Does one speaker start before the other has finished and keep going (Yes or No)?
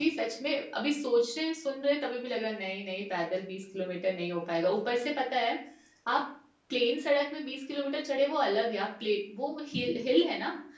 No